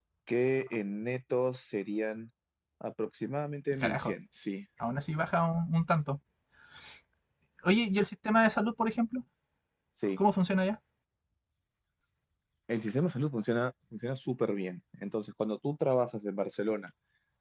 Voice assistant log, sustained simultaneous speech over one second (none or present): none